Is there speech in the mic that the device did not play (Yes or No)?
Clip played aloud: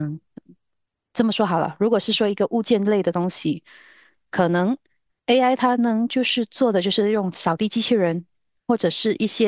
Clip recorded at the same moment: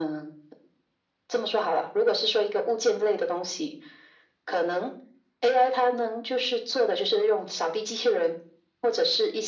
No